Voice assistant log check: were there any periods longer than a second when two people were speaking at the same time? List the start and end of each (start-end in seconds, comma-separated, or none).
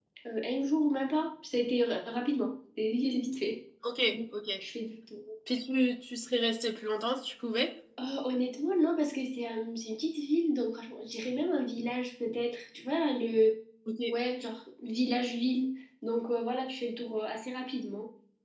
none